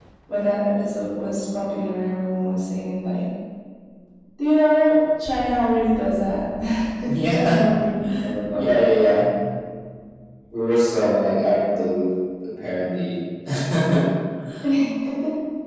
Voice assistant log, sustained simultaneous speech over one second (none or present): none